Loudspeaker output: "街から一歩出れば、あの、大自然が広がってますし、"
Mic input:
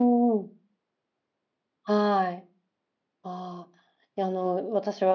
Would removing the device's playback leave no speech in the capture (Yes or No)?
No